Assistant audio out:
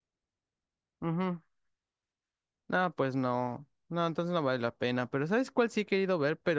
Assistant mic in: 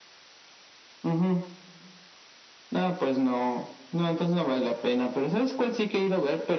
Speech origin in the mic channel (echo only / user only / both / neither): echo only